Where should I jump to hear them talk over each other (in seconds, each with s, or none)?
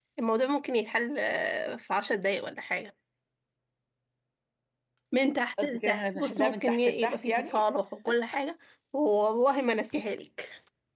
5.6 s